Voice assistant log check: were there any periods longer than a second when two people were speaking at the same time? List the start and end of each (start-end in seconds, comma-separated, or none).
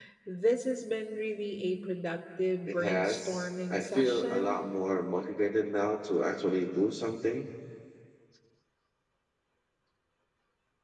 2.7-4.6